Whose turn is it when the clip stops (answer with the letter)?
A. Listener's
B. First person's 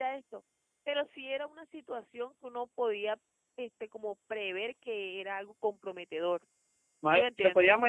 A